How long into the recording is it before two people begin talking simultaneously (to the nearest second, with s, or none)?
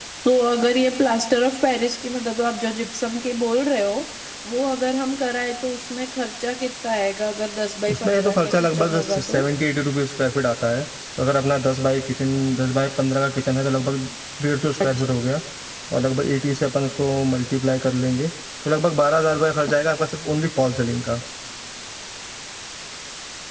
8 s